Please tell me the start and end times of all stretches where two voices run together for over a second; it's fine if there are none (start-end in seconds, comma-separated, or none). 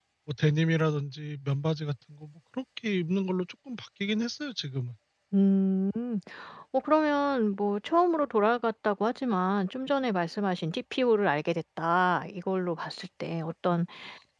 none